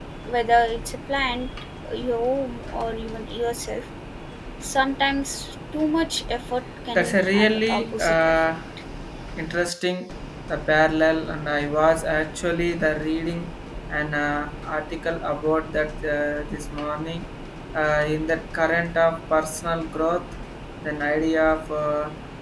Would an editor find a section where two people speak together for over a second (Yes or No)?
Yes